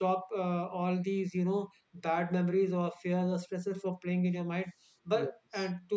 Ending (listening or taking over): listening